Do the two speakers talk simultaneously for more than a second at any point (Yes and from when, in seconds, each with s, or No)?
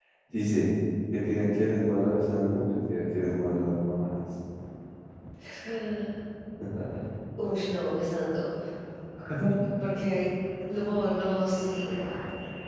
No